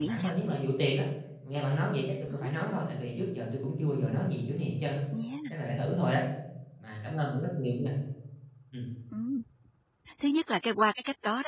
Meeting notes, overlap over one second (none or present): none